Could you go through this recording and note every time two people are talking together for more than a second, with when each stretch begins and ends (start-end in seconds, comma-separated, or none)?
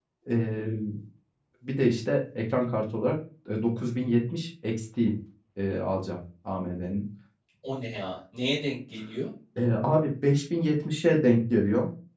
none